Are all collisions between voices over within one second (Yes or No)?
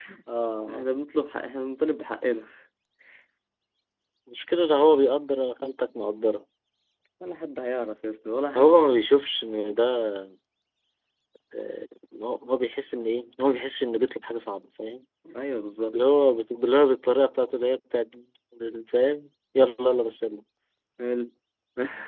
Yes